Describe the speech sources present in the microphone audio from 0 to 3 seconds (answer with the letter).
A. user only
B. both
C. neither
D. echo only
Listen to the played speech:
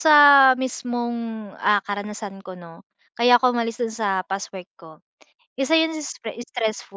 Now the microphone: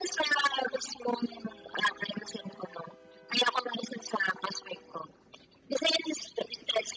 D